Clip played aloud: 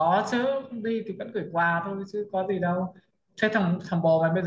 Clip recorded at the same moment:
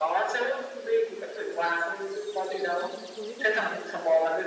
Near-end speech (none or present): present